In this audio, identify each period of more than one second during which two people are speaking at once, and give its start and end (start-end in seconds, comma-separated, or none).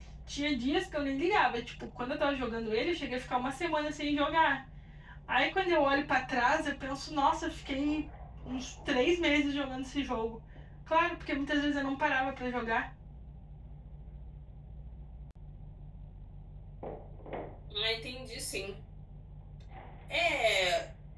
none